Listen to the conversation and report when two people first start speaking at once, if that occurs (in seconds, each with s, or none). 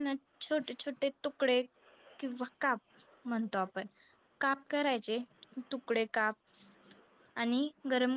none